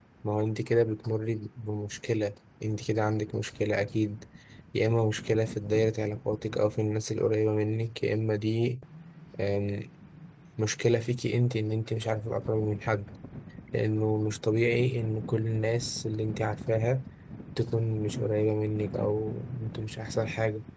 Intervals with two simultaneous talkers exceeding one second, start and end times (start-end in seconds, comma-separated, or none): none